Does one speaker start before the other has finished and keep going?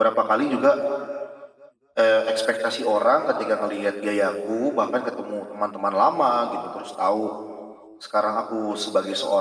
No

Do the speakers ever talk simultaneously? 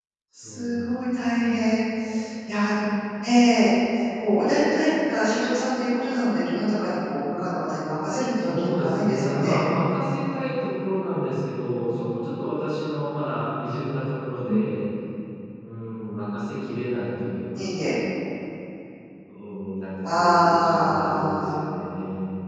Yes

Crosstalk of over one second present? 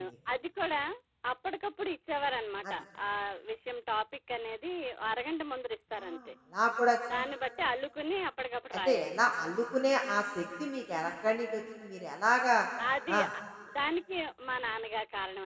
No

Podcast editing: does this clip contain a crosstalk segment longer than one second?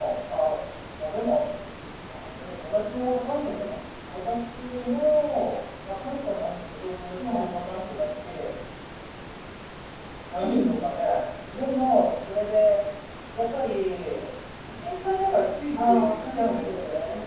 Yes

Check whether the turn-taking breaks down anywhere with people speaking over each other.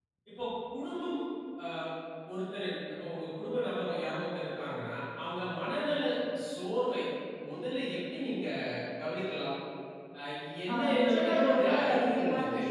Yes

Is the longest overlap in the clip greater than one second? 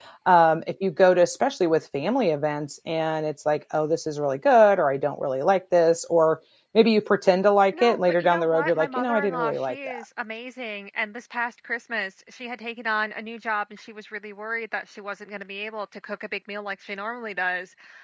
Yes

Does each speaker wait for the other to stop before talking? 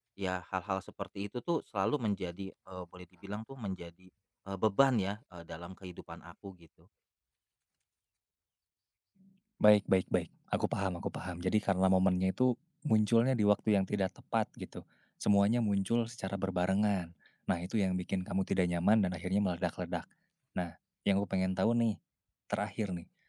Yes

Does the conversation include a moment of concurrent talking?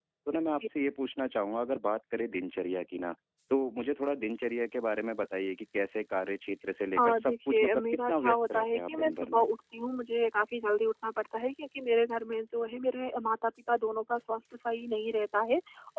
Yes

